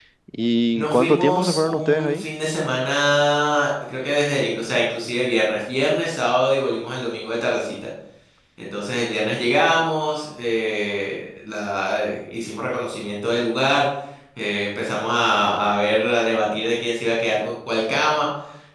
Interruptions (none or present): present